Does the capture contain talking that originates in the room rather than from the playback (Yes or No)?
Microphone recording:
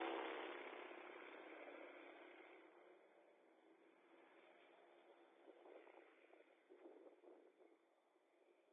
No